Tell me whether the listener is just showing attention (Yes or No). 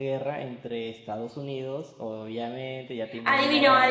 No